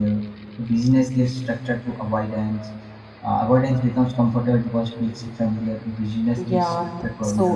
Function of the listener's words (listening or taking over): taking over